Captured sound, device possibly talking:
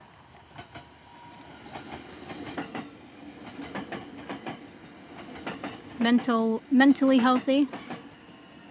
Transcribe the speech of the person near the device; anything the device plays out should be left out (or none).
mental mentally healthy?